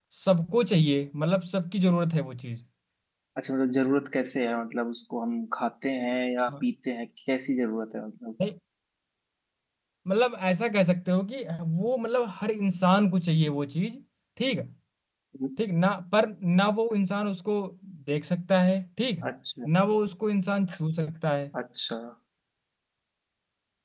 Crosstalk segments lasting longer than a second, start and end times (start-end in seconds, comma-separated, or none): none